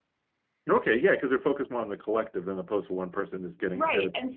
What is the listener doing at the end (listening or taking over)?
taking over